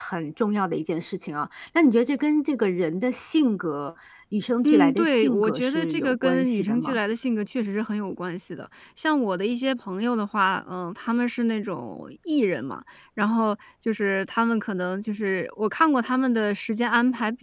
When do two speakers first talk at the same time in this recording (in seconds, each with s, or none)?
4.6 s